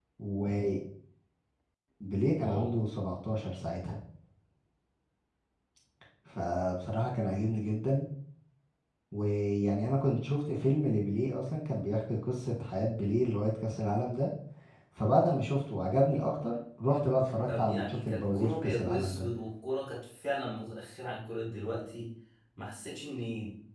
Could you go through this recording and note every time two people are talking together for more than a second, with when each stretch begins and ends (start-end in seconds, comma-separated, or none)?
17.5-19.3